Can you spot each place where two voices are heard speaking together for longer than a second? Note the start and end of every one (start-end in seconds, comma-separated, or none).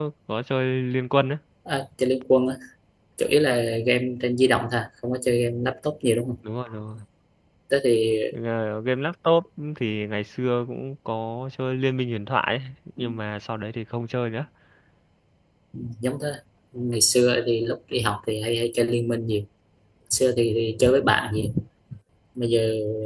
none